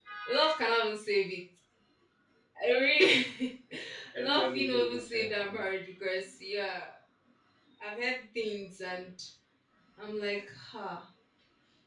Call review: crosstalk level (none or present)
present